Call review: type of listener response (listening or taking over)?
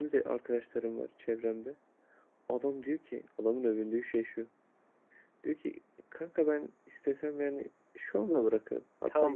taking over